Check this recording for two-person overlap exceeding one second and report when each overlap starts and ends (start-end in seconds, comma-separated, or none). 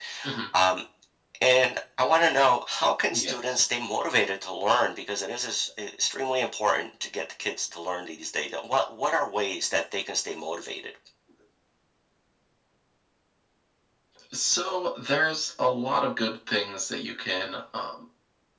none